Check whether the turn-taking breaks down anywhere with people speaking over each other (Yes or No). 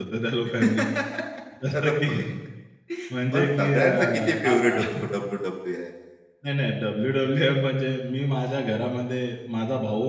Yes